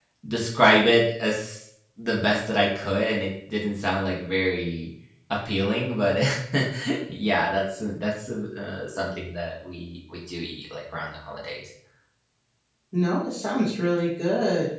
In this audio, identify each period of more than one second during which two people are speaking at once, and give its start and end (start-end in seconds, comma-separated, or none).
none